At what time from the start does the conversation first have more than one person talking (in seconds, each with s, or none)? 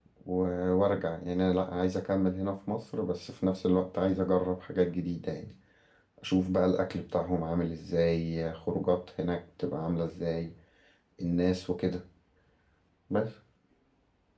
none